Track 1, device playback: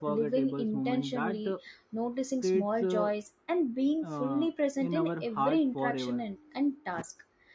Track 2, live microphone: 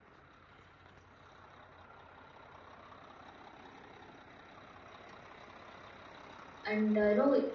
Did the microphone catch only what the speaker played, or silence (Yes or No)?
No